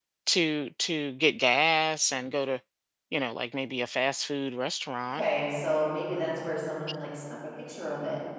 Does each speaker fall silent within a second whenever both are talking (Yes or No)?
Yes